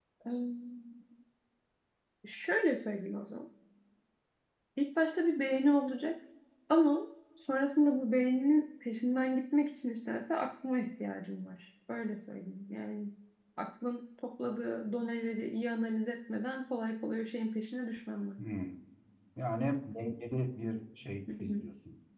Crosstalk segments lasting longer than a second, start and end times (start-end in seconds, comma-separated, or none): none